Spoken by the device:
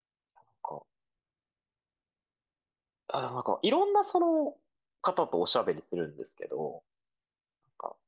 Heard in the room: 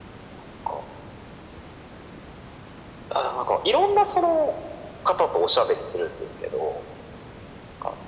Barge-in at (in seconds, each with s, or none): none